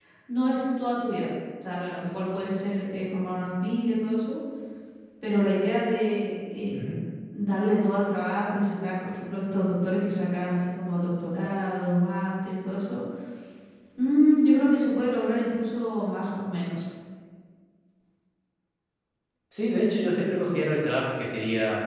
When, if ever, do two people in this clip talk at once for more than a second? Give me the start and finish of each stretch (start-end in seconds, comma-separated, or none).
none